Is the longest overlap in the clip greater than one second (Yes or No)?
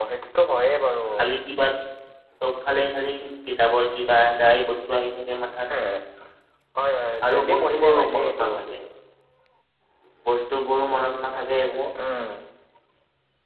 Yes